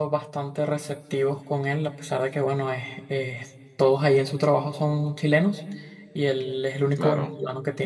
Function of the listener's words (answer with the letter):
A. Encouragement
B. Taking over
A